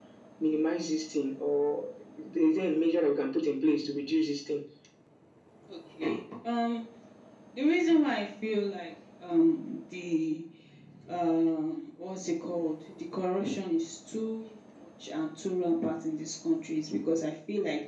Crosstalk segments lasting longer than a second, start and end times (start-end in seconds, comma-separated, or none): none